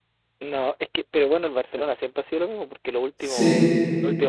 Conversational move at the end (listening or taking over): listening